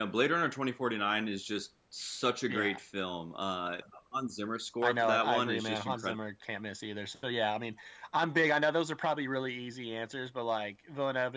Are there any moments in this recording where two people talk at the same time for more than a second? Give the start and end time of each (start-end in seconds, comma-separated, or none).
4.8-6.2